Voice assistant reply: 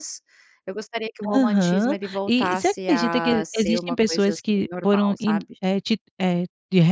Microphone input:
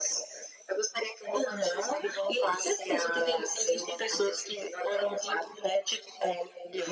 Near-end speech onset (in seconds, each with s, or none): none